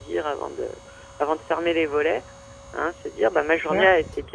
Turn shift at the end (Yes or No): No